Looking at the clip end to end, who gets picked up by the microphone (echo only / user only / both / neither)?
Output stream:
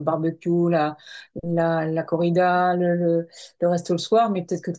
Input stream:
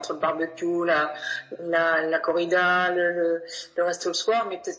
echo only